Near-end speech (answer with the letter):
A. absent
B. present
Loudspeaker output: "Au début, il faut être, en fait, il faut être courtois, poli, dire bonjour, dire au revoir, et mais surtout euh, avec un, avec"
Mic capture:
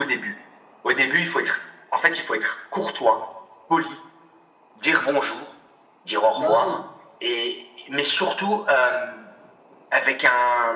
B